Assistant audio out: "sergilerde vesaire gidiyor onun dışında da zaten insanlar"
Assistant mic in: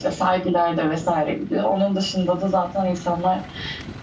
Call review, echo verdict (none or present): present